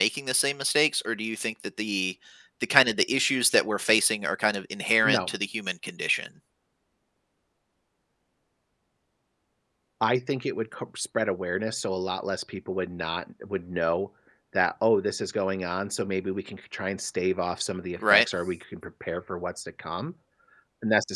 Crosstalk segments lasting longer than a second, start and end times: none

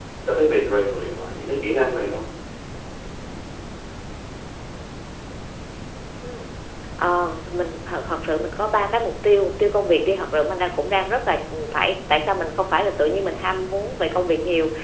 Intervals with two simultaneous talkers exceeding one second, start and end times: none

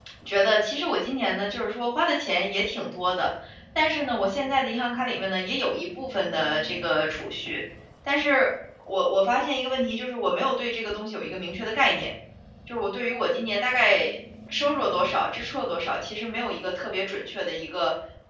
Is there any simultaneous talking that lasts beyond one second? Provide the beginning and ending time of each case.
none

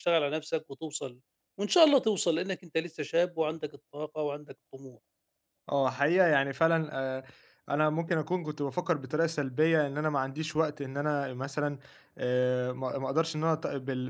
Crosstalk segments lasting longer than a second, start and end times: none

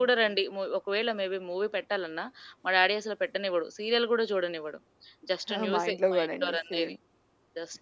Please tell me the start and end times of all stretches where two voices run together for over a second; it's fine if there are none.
5.5-6.9

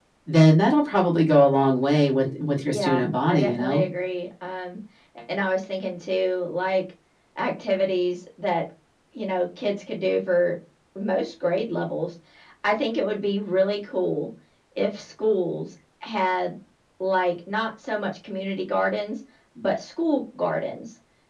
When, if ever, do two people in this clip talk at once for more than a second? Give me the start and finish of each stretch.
2.7-3.9

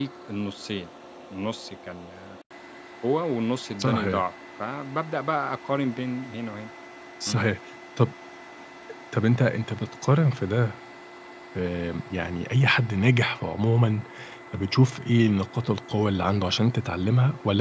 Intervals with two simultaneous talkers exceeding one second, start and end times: none

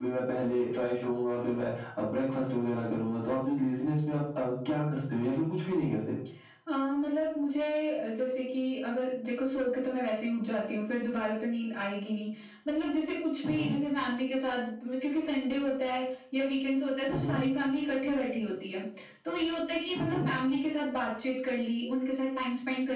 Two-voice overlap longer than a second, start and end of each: none

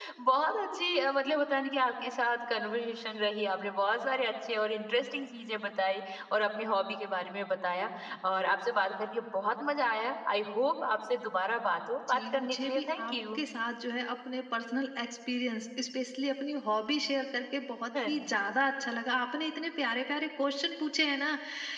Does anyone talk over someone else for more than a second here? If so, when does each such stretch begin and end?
12.1-13.4

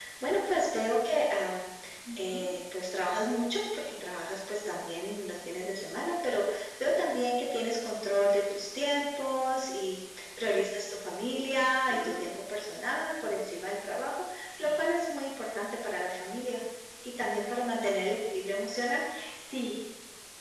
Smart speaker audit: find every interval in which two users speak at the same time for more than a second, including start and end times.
none

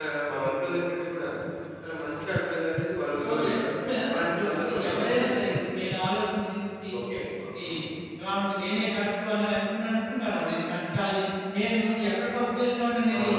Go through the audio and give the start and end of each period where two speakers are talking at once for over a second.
4.2-5.6

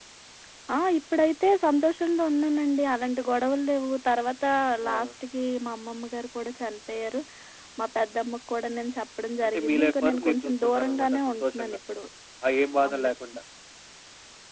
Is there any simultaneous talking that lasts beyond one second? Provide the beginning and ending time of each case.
9.4-11.8

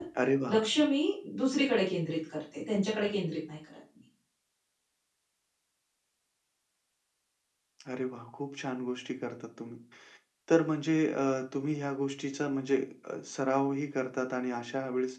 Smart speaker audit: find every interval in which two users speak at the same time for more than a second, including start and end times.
none

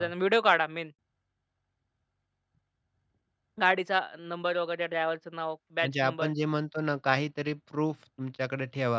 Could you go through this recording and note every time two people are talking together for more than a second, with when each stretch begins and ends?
none

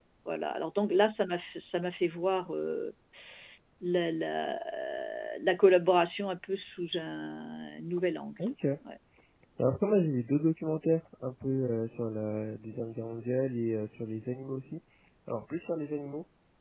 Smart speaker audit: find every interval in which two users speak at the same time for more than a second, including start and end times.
none

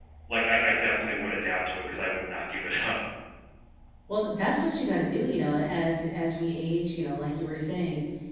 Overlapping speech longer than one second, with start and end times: none

